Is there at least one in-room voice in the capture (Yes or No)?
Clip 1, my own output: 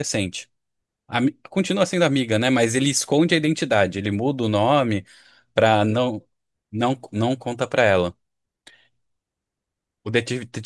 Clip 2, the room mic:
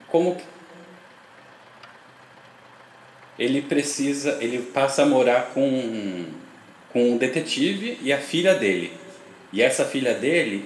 Yes